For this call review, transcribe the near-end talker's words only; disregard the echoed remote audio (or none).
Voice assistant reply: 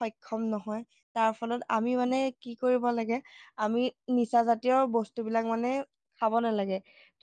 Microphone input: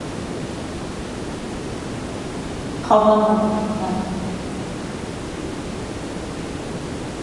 সবল হয়